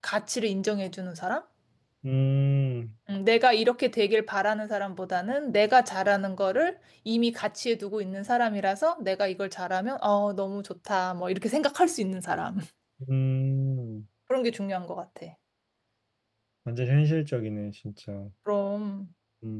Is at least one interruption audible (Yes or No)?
No